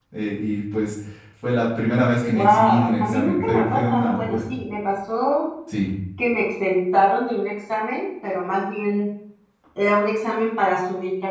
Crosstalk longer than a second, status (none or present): present